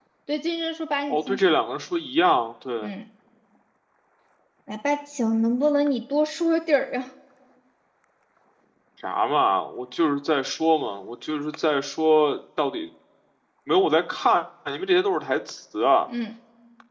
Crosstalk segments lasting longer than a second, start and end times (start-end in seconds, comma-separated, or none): none